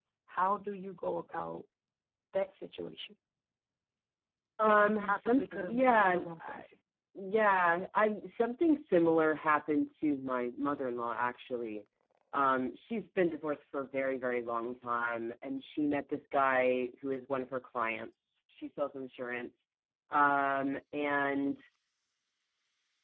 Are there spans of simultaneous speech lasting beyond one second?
Yes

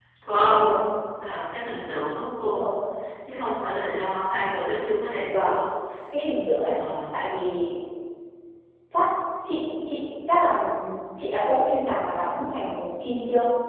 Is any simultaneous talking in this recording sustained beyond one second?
No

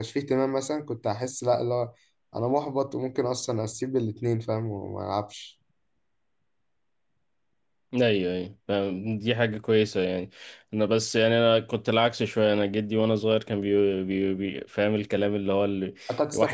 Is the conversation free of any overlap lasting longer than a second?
Yes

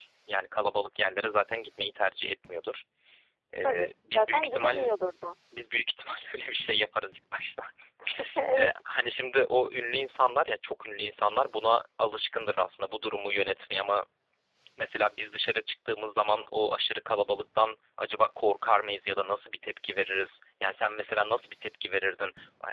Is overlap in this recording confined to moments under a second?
No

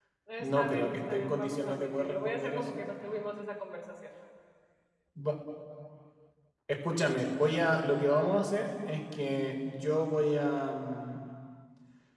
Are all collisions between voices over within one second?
No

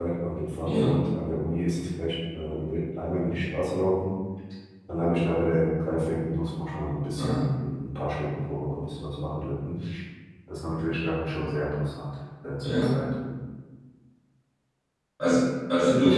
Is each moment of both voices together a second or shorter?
Yes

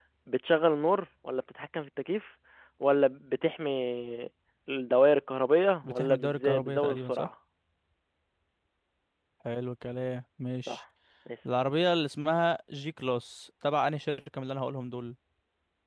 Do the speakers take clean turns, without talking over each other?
No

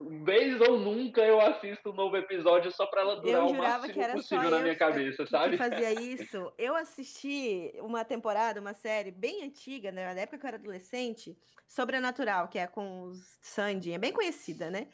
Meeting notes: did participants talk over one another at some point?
Yes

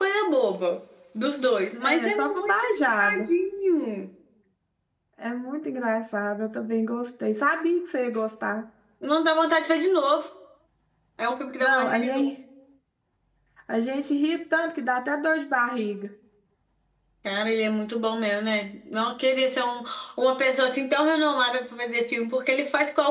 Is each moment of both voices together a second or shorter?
No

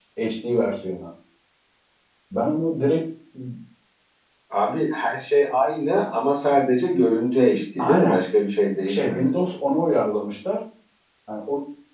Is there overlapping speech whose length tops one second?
No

